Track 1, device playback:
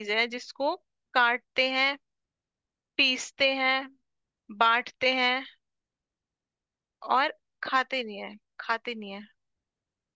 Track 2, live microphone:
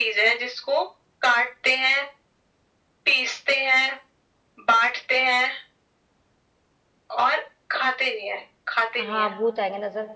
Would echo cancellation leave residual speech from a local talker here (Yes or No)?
Yes